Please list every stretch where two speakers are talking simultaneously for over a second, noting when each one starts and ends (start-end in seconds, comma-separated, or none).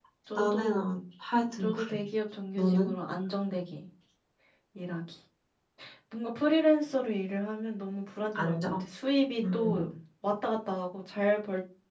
none